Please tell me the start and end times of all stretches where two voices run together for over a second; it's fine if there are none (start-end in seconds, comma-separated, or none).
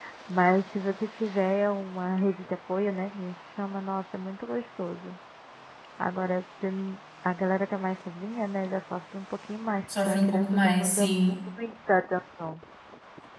10.0-11.4